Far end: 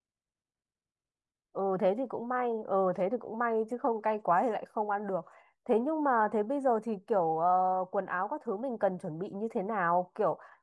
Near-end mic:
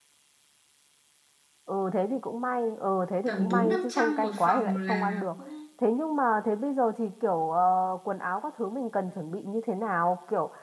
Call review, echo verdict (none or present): present